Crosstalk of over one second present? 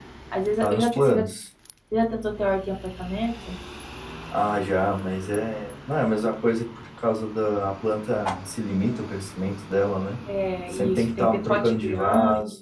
Yes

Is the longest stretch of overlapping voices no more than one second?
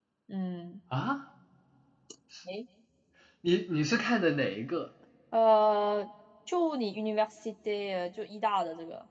Yes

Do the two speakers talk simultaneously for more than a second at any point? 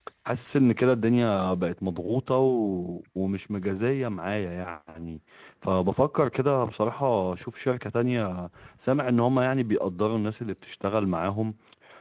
No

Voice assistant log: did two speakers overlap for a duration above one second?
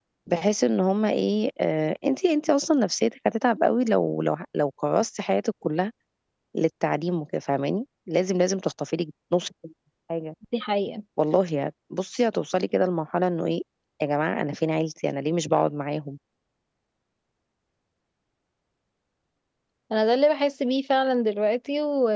No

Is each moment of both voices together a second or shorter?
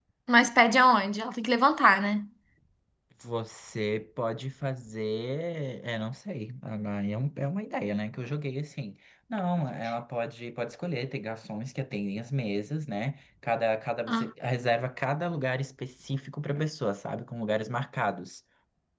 Yes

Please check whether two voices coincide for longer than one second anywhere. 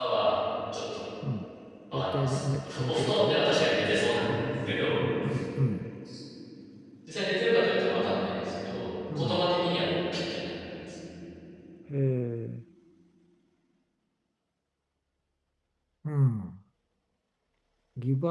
Yes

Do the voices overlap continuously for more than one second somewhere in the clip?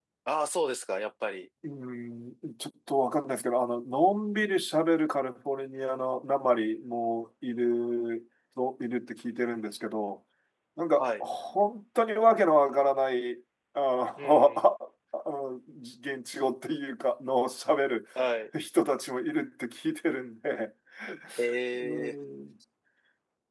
No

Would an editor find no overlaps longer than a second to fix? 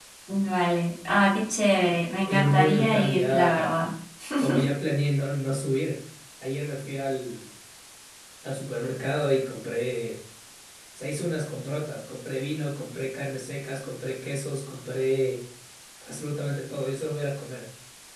No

